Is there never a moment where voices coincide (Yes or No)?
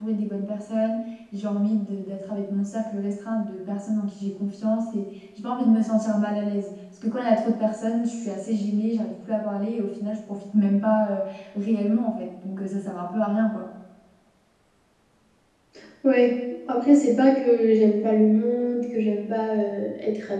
Yes